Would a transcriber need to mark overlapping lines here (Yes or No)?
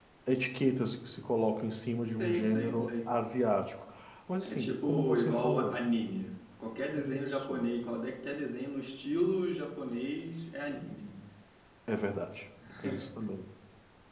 Yes